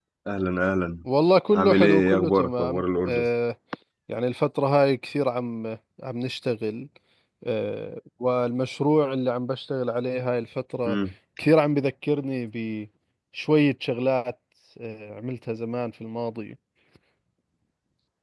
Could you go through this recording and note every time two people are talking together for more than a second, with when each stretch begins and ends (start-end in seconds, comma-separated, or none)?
1.5-3.2